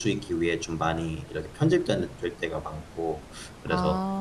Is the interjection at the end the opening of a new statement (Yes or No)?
No